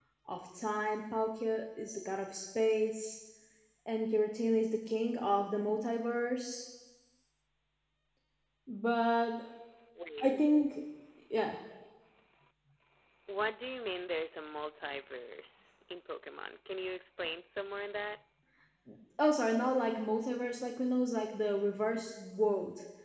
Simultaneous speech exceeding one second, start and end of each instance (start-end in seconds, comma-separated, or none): none